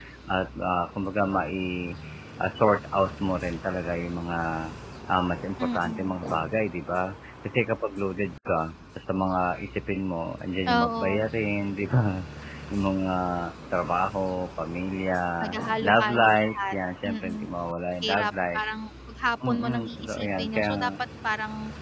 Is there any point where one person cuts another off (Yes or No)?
Yes